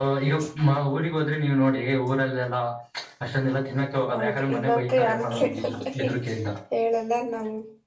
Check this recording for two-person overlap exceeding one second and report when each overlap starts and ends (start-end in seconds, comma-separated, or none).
4.1-6.1